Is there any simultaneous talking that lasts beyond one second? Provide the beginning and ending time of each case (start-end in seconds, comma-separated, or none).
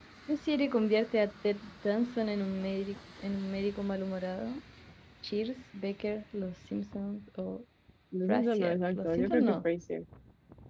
8.3-9.6